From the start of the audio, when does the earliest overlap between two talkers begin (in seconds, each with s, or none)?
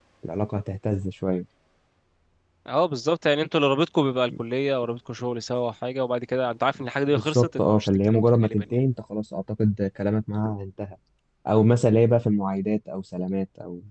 7.1 s